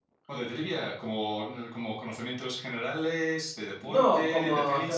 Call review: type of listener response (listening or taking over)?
taking over